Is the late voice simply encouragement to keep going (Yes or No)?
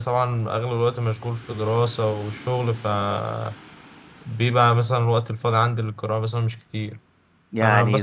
Yes